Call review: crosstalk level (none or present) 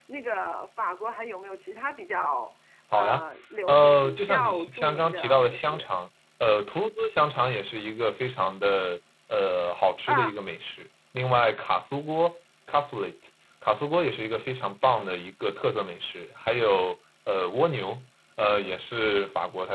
present